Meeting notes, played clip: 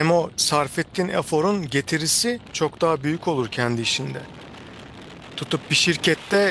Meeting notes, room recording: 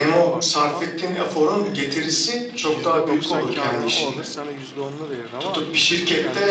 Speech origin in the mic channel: both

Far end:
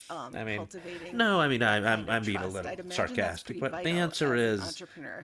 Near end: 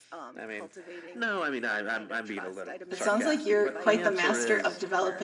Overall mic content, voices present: both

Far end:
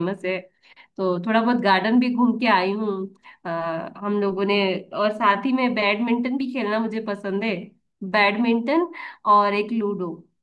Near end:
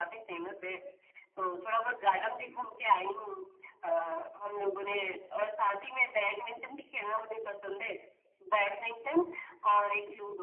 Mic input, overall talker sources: echo only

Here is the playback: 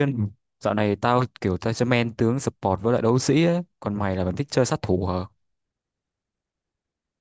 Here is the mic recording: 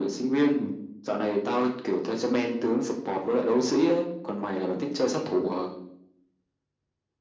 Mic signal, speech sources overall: echo only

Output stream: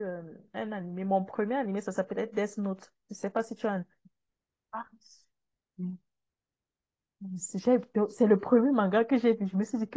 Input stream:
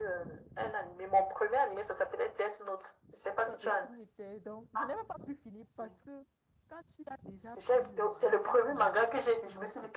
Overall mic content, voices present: both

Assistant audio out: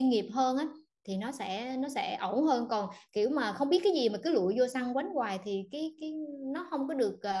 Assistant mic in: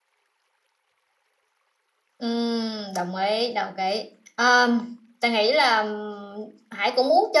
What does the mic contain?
user only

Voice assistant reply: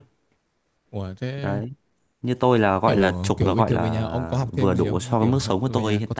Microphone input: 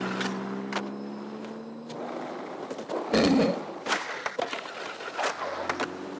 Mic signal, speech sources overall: user only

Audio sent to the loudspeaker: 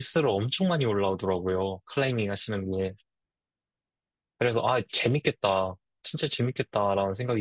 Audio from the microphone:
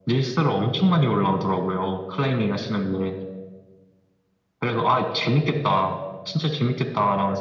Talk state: echo only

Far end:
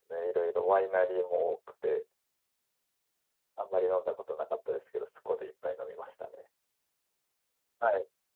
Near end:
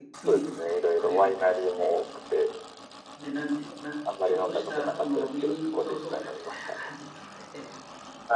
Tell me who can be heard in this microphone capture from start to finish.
both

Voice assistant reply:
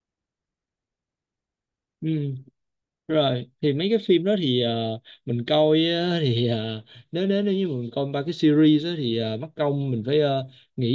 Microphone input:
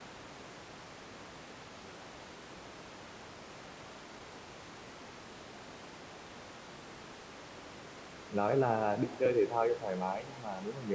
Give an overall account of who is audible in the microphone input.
user only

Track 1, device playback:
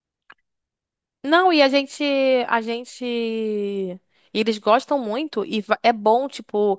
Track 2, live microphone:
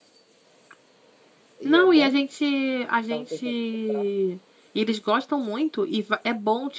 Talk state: both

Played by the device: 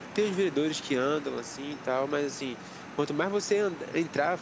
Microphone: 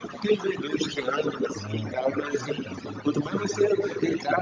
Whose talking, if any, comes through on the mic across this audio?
both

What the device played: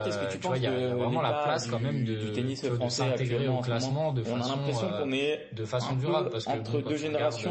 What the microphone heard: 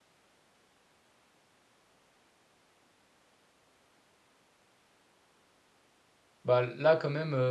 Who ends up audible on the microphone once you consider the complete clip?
user only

